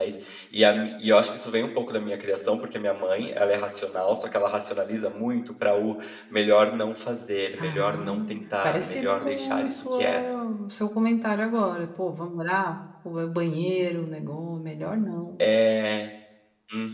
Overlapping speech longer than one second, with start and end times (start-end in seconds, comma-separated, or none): 7.6-10.2